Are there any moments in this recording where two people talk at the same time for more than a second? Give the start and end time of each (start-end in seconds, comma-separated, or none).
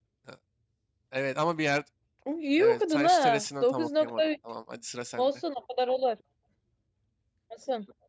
2.6-4.3